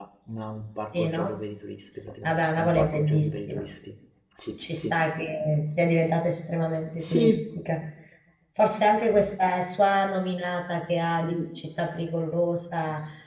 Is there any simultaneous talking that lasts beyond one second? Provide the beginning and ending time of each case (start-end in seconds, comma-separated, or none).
2.2-3.7